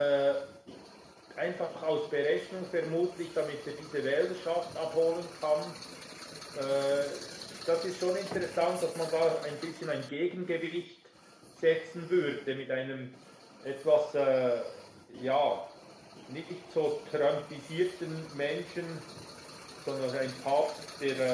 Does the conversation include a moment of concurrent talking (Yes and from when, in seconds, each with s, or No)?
No